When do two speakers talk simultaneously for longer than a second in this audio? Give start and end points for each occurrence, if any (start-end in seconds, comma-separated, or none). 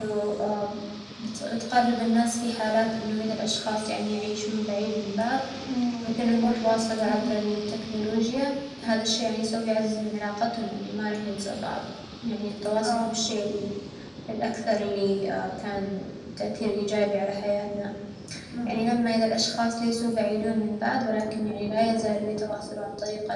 6.0-7.3